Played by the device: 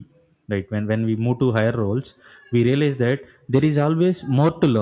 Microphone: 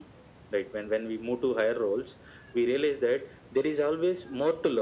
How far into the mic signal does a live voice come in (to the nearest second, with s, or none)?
none